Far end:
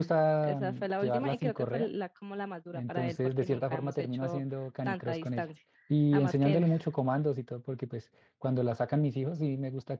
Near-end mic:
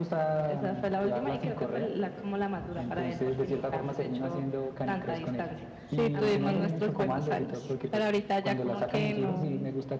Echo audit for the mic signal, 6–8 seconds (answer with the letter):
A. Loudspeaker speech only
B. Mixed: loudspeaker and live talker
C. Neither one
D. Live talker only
B